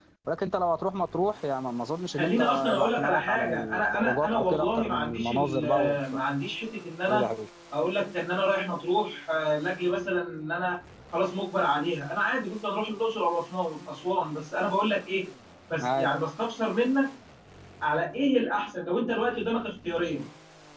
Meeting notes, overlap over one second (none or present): present